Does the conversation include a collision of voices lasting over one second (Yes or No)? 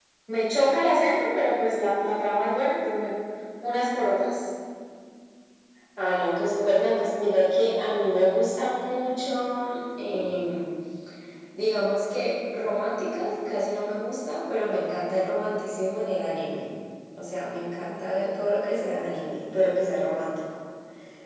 No